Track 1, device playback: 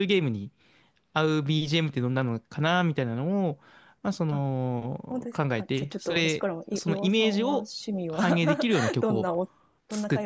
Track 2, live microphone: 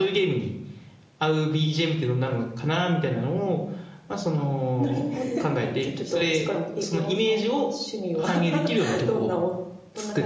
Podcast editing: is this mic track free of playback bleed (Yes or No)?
No